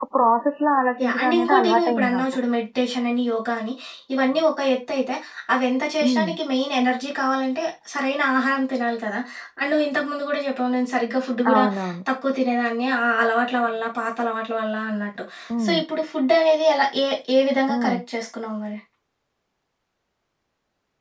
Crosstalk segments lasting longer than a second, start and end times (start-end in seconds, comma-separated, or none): 1.0-2.2